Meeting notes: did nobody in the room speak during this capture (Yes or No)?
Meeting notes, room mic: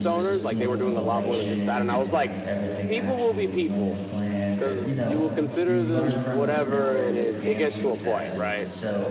No